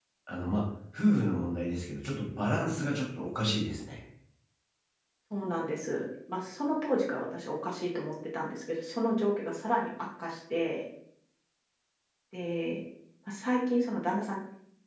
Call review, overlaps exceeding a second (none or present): none